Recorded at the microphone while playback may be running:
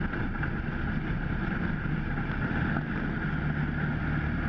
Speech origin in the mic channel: neither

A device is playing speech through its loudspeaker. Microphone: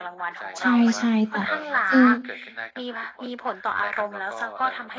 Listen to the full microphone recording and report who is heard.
both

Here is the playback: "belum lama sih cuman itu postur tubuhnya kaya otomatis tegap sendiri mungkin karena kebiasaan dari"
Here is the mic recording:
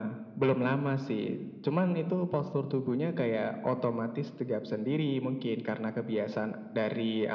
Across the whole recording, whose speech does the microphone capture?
echo only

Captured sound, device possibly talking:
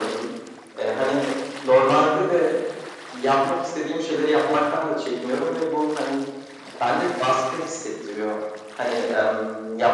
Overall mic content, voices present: echo only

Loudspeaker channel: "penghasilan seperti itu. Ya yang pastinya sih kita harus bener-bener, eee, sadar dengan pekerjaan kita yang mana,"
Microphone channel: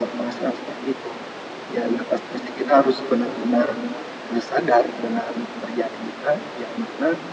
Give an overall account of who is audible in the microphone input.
echo only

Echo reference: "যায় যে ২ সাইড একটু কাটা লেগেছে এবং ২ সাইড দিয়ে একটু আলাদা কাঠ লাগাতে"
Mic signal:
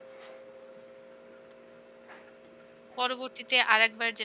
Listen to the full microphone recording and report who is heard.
user only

